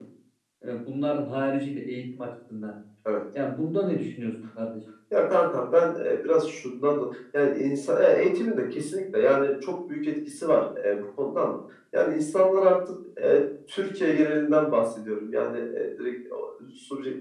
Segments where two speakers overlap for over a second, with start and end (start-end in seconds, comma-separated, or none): none